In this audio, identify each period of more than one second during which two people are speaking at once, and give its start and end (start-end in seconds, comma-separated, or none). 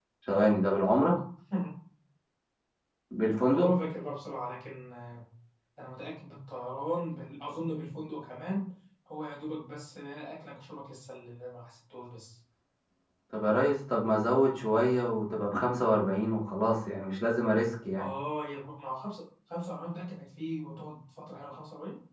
none